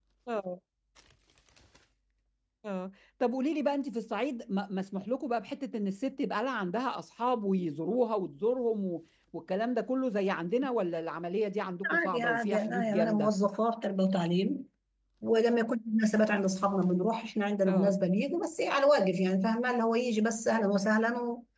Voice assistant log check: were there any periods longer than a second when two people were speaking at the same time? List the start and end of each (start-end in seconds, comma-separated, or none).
11.9-13.3